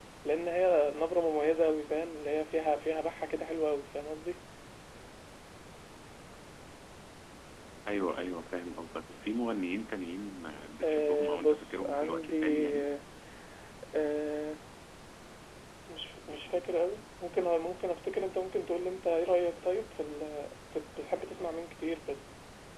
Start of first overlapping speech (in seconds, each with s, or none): 10.8 s